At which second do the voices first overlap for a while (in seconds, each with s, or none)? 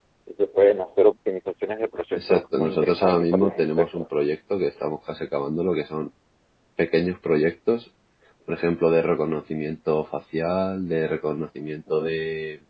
2.2 s